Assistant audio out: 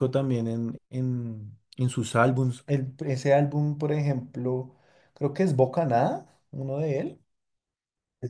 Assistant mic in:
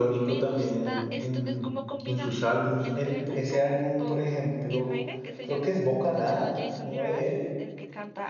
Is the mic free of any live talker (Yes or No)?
No